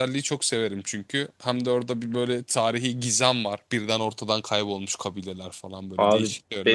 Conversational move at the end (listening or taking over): taking over